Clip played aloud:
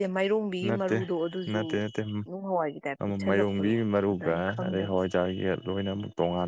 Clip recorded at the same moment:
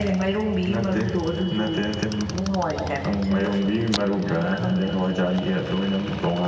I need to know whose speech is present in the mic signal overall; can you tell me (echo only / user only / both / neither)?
echo only